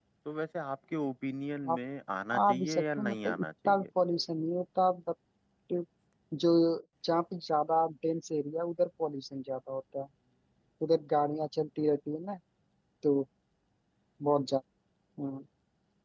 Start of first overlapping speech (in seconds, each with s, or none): 2.5 s